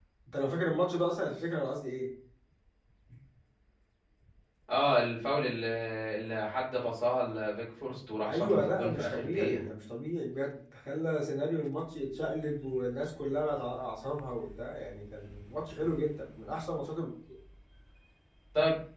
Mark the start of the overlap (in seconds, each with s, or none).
8.3 s